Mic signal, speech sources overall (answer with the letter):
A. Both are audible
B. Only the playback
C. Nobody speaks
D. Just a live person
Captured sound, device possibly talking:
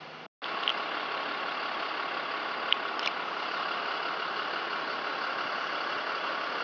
C